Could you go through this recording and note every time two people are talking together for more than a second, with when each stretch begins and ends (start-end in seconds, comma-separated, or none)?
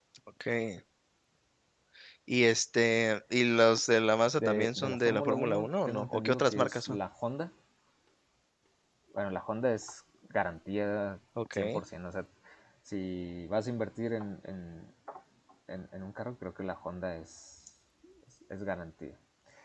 4.4-7.0